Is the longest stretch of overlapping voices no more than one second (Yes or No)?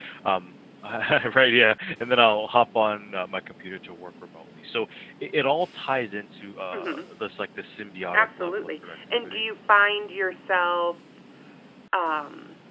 No